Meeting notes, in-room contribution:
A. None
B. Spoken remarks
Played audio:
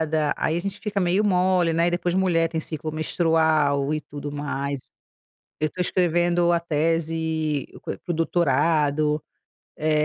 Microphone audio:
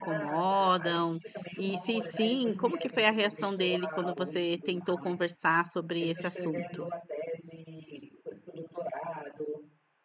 B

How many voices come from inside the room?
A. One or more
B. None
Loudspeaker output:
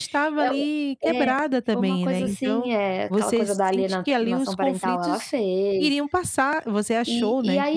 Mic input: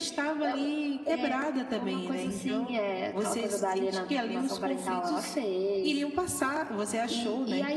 B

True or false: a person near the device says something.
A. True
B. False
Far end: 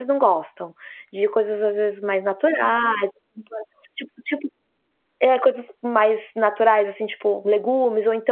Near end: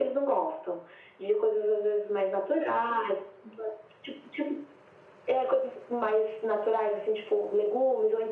B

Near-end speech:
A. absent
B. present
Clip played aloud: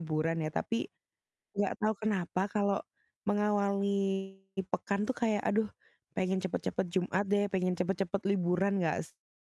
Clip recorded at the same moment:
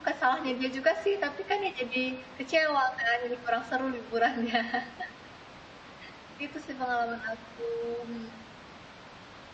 B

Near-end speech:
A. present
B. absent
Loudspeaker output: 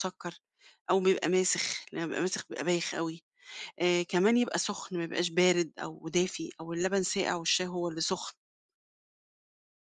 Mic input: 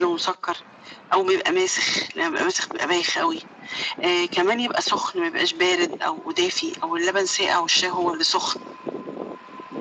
B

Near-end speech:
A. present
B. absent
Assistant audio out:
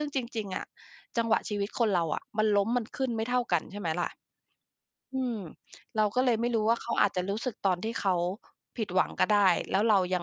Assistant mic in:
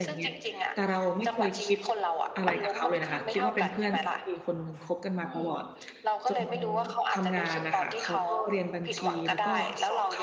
A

